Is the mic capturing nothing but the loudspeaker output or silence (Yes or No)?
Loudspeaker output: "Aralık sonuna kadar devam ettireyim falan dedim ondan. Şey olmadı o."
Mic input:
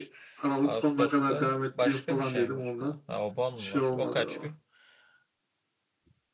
No